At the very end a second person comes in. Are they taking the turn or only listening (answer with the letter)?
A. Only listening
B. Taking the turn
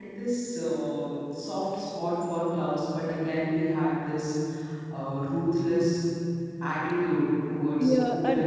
B